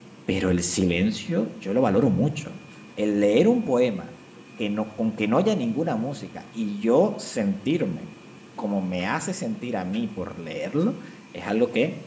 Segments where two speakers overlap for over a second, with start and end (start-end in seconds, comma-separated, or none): none